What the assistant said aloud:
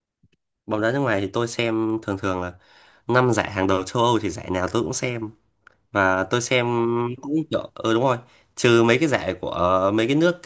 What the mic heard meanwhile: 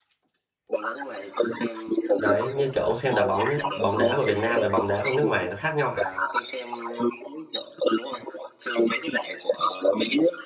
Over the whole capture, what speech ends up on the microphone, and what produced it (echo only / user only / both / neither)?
both